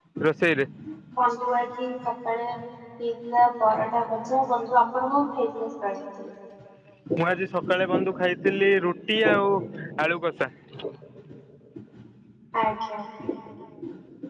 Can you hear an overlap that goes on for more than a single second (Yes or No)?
No